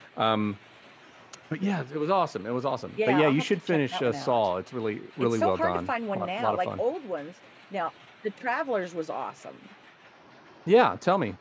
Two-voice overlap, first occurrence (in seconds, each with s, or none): 3.0 s